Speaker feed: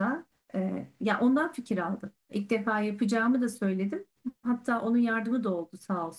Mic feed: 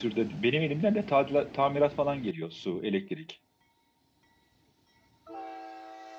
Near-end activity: present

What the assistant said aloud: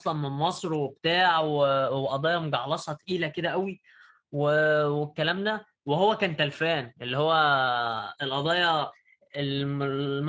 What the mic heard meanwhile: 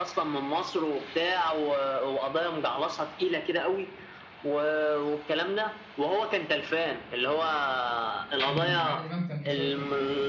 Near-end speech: present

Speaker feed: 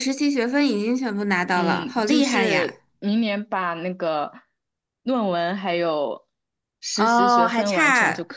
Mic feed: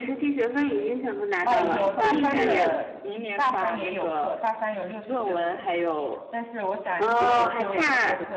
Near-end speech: present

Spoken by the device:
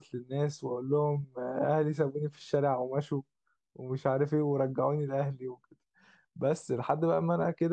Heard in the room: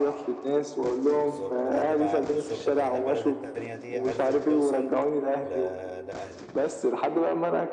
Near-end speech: present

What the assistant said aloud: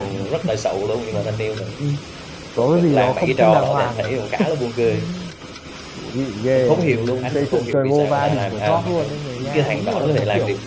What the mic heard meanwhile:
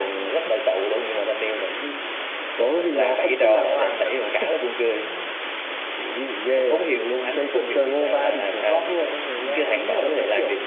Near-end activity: none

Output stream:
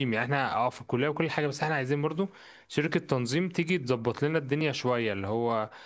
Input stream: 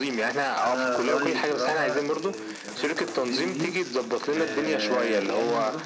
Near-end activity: present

